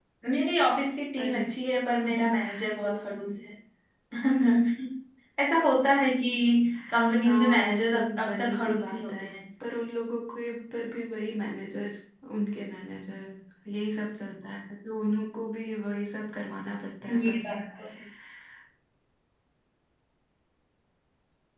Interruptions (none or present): present